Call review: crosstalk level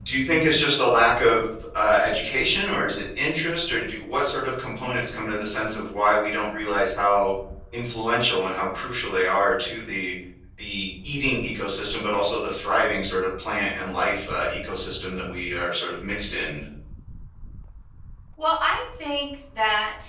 none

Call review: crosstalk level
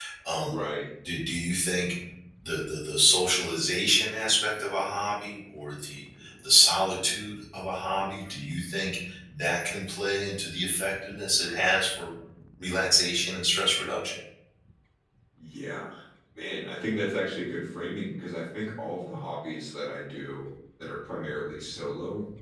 none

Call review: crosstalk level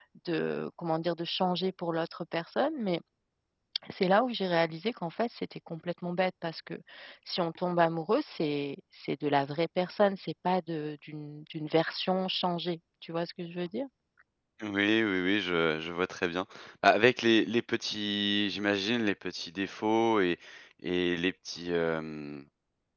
none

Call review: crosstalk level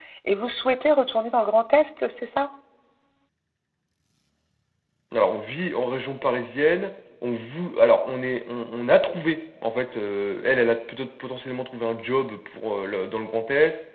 none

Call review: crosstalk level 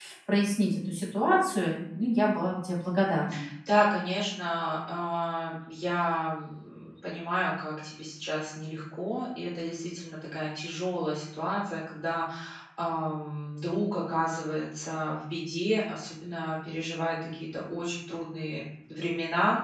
none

